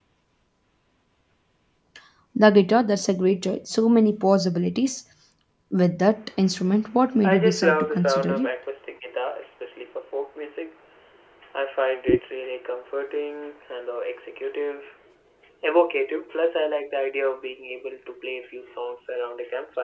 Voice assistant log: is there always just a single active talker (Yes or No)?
No